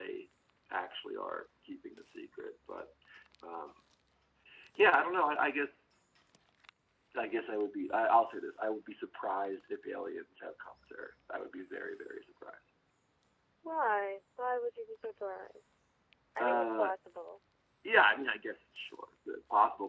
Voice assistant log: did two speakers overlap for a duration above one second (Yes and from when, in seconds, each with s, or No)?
No